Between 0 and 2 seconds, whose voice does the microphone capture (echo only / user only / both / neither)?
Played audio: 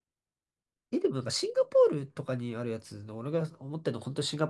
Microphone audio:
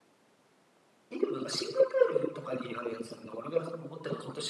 echo only